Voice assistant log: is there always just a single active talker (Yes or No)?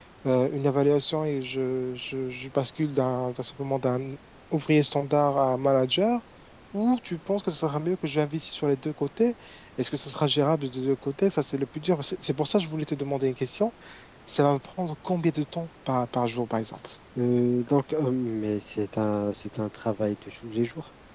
Yes